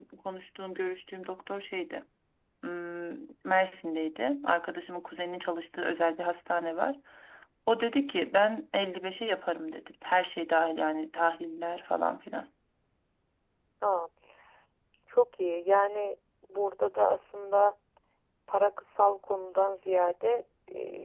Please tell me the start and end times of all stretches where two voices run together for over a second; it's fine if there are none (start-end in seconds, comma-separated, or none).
none